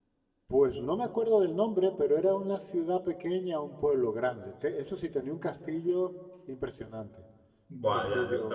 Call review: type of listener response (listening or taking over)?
taking over